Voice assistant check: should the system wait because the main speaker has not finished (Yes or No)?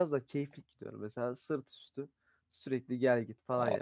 Yes